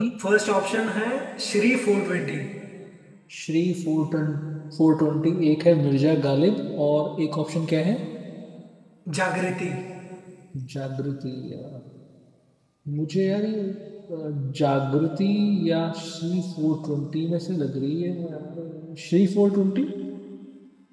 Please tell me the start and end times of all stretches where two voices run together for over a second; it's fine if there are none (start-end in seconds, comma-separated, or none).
none